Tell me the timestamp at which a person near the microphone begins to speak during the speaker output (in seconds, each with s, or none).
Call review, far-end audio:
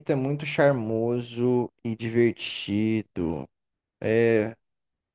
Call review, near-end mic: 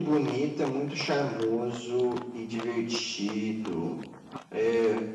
none